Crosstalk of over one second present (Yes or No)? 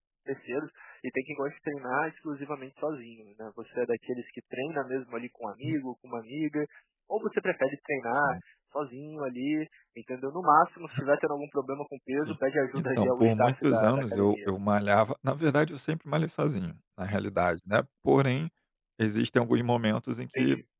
Yes